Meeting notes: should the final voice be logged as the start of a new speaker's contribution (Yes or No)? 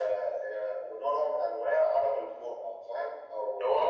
Yes